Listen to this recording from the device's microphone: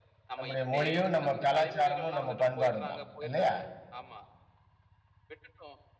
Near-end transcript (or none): நம்முடைய மொழியும், நம்ப கலாச்சாரமும், நம்ப பண்பாடும் தான் இல்லயா?